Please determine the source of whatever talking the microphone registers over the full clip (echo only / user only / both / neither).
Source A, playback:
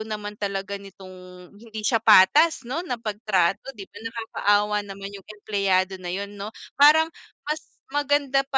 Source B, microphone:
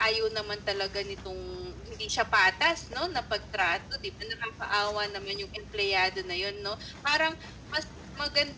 echo only